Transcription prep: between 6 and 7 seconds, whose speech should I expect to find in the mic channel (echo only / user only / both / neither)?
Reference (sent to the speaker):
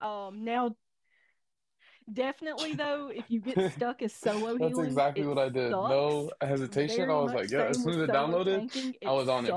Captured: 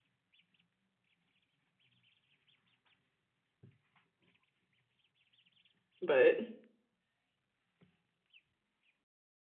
user only